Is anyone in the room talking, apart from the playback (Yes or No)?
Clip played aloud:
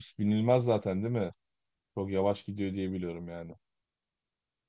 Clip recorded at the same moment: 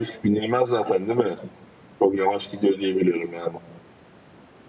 No